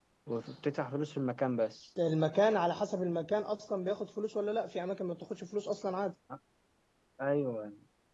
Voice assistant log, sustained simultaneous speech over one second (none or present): none